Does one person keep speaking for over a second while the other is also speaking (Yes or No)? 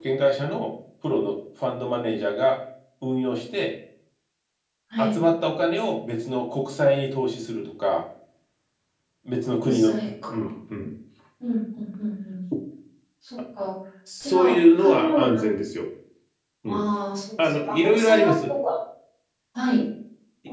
Yes